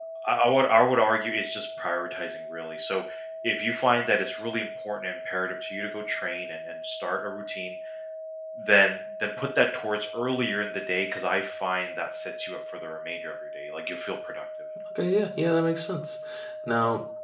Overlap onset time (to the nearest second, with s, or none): none